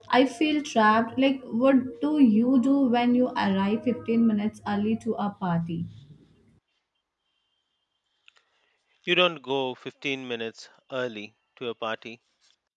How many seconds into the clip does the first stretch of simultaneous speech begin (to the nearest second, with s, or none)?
none